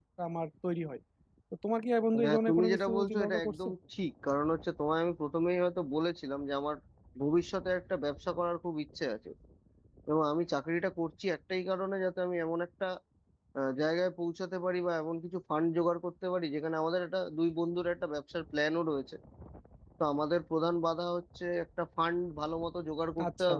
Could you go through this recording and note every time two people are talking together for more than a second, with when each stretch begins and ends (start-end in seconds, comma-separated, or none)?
2.2-3.7